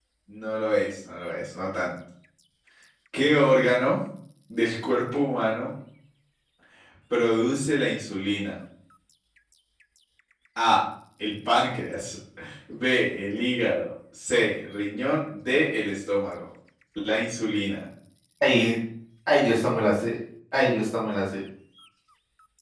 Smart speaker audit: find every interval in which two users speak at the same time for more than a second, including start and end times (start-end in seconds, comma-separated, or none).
none